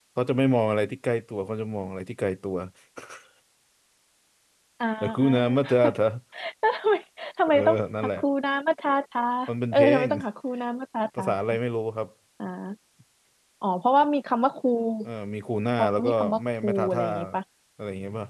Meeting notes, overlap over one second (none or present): present